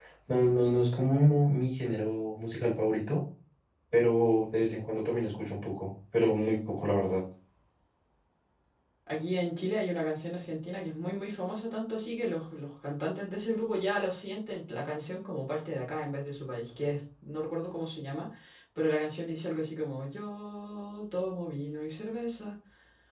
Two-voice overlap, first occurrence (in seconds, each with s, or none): none